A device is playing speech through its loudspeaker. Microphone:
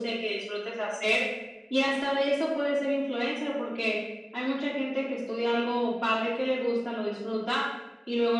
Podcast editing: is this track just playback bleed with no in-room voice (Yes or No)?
Yes